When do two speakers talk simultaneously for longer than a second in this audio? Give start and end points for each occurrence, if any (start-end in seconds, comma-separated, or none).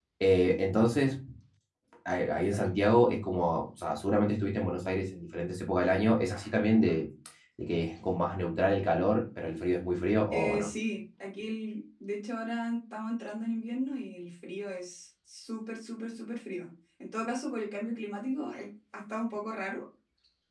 none